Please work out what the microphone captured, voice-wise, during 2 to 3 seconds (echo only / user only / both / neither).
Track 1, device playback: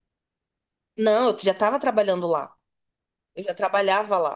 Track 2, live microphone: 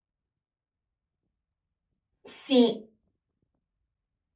user only